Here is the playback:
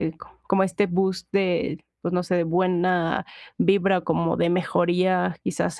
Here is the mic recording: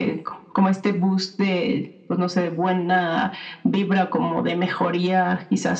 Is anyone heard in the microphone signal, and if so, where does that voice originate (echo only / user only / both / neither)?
echo only